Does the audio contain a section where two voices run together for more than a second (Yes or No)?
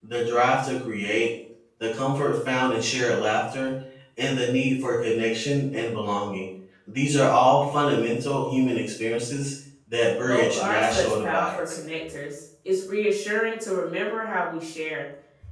Yes